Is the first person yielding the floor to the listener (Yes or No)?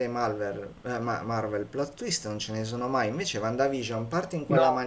No